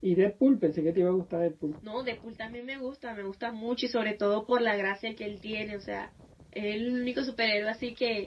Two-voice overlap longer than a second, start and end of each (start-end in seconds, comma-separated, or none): none